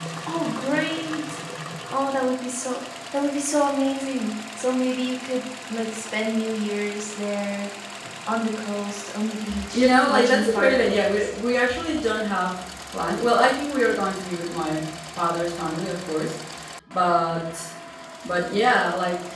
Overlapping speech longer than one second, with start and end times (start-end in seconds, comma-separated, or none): 9.7-11.3